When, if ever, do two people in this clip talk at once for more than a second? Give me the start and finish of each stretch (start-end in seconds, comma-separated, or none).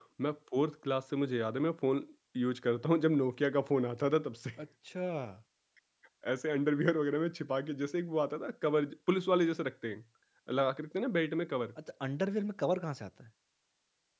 none